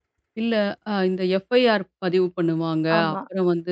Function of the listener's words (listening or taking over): listening